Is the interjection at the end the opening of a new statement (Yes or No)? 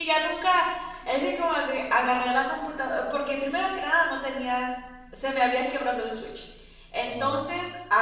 No